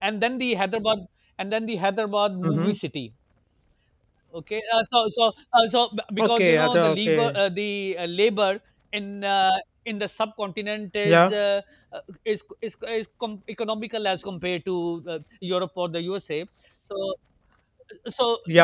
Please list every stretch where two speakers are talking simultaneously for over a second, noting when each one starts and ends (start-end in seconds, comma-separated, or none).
6.2-7.4